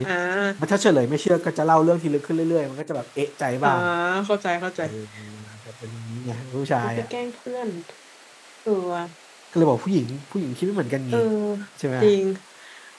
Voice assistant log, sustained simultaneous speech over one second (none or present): none